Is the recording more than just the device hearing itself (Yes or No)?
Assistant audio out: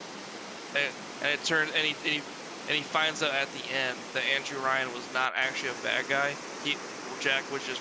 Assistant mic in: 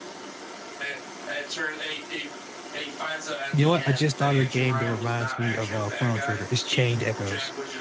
Yes